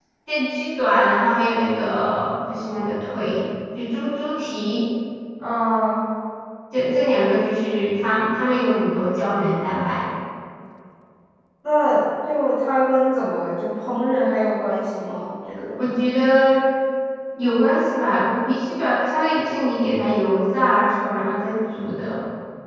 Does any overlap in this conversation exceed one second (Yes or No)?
No